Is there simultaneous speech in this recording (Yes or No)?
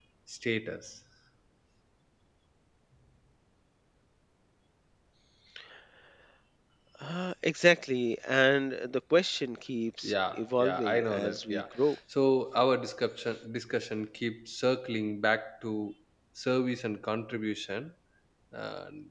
Yes